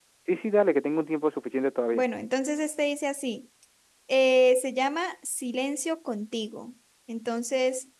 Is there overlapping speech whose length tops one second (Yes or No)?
No